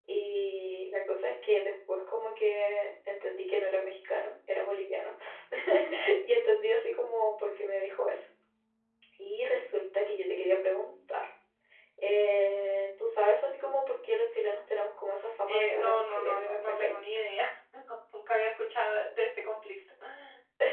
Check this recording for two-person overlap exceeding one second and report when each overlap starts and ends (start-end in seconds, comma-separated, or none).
15.5-16.9